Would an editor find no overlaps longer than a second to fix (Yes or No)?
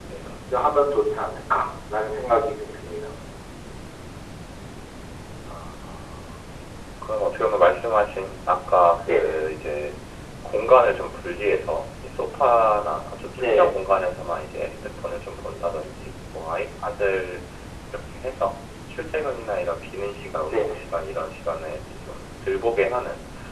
Yes